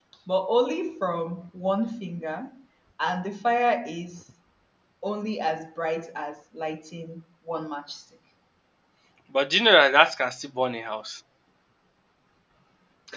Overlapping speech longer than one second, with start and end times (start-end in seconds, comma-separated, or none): none